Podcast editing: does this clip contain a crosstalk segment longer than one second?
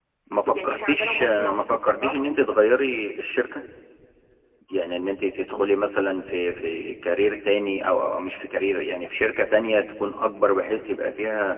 Yes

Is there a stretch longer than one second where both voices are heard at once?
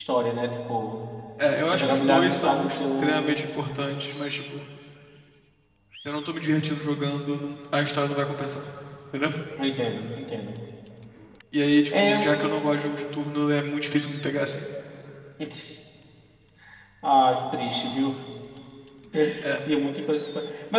Yes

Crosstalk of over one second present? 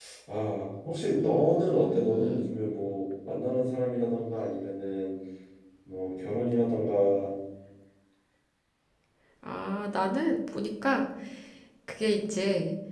Yes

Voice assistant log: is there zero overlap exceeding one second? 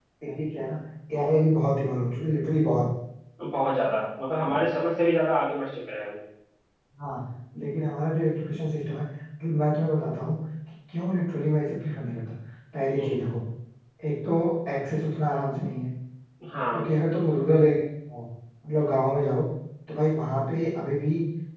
Yes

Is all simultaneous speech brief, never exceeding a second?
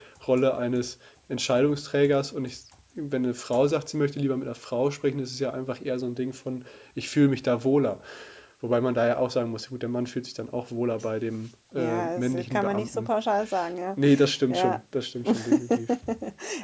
No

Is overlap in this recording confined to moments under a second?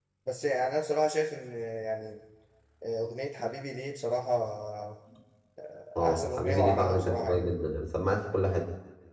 No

